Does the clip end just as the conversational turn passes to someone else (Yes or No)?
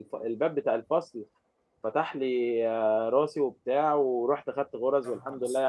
No